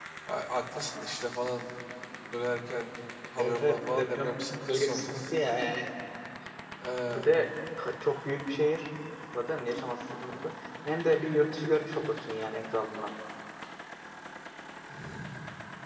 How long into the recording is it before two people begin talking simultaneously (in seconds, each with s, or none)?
3.4 s